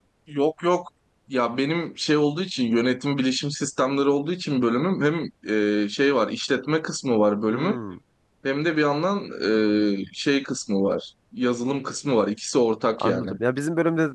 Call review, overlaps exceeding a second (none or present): none